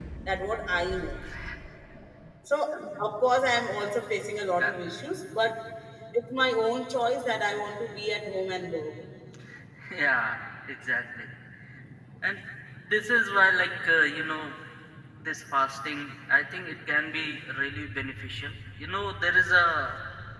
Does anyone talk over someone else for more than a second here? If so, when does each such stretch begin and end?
none

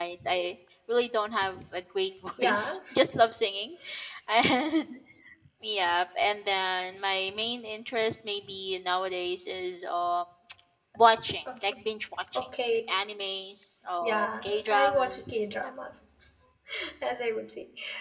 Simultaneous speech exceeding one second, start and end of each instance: 14.0-15.5

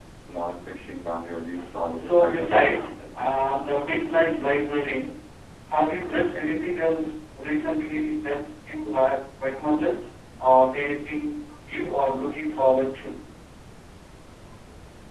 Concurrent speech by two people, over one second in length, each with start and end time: 2.0-3.2

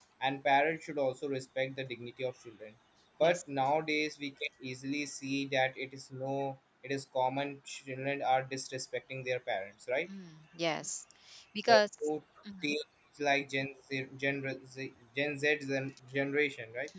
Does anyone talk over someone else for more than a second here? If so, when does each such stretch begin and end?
none

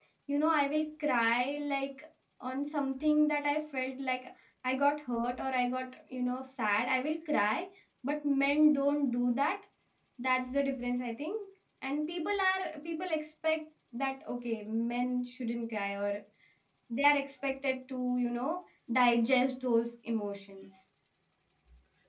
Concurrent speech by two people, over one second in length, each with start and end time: none

